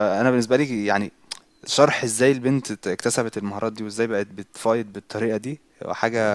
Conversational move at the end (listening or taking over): listening